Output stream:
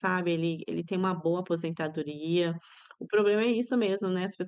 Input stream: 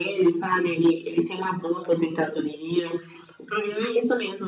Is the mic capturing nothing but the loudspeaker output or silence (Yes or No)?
Yes